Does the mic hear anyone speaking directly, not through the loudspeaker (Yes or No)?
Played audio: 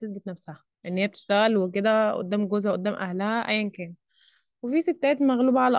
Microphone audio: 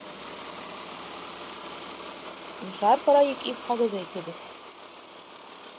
Yes